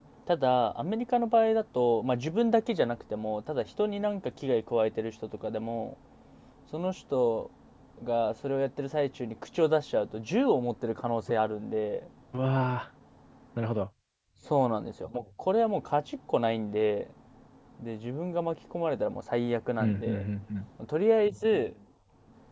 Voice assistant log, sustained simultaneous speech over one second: none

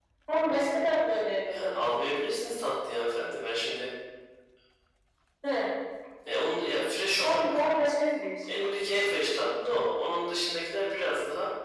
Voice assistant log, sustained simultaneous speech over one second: none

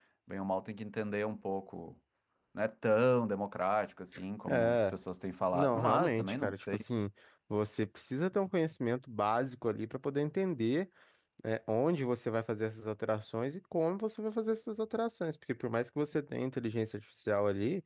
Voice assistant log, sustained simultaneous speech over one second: present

